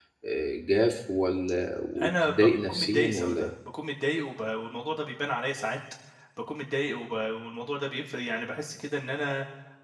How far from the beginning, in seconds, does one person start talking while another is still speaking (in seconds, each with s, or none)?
2.0 s